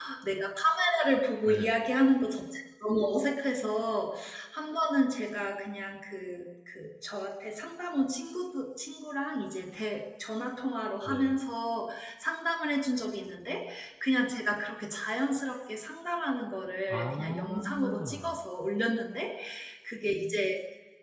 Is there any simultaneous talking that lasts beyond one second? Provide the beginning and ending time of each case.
16.9-18.3

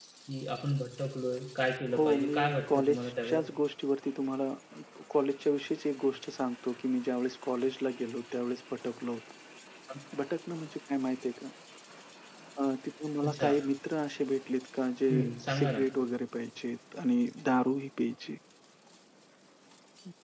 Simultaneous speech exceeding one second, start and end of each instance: 1.9-3.4

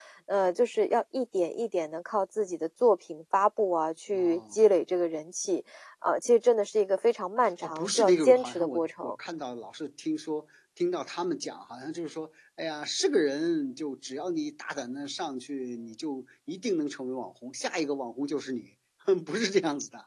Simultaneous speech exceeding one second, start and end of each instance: 7.6-9.2

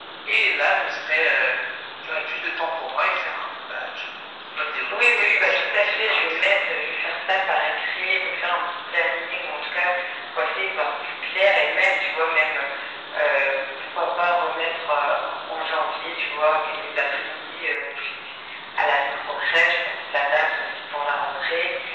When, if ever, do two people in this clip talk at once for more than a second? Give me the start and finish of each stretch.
4.9-6.6

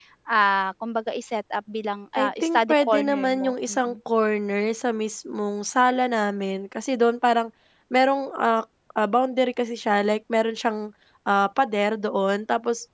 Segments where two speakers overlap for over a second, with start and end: 2.2-3.9

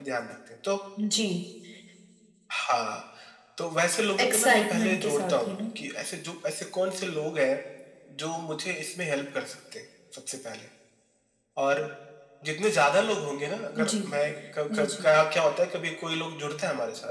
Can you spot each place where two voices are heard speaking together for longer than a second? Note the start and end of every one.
4.2-5.5

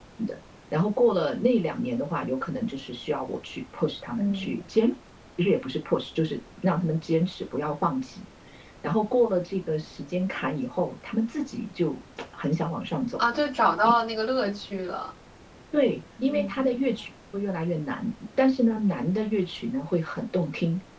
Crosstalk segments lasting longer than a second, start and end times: none

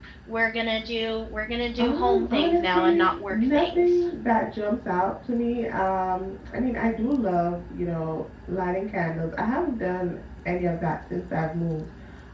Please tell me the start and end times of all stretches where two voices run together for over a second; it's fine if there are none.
1.8-4.0

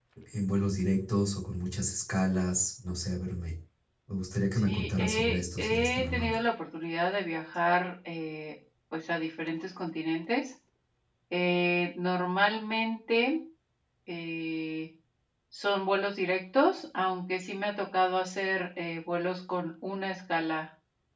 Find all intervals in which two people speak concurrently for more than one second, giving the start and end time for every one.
4.5-6.4

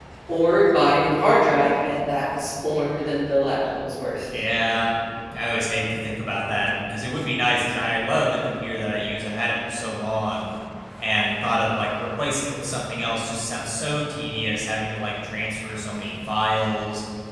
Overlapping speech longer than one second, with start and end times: none

